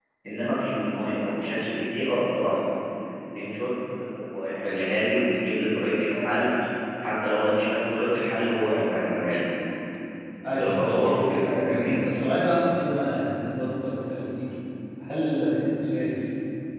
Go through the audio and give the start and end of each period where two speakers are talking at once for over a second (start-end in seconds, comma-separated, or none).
10.6-11.9